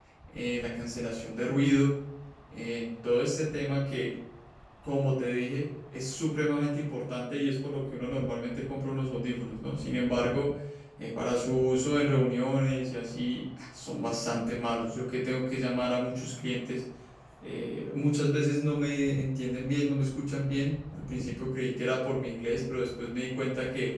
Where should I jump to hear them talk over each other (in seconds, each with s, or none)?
none